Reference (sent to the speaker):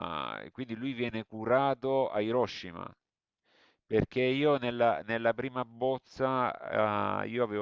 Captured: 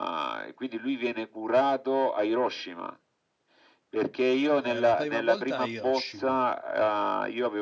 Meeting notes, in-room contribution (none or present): present